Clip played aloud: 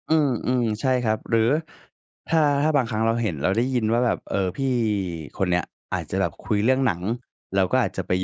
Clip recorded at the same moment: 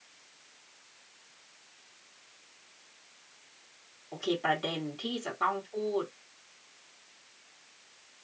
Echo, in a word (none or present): none